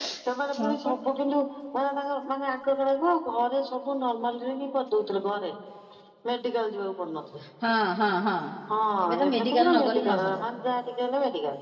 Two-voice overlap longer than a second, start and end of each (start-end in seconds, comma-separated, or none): 9.1-10.4